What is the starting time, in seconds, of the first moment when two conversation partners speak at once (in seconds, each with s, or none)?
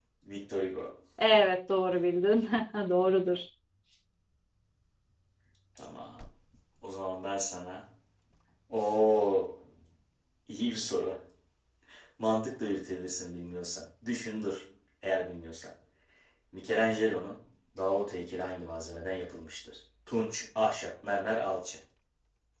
none